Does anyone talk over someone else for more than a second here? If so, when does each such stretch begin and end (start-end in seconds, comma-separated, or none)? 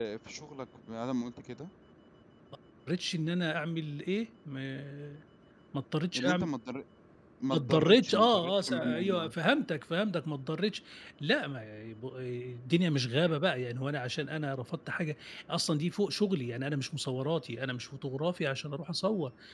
7.5-9.3